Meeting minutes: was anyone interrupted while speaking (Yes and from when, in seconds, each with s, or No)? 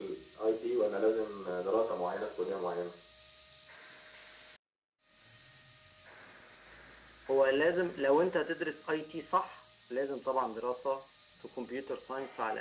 No